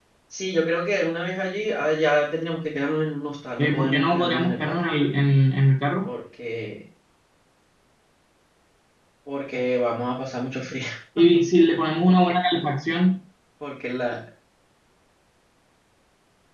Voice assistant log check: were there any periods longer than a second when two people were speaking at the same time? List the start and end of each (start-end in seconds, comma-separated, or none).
3.6-4.8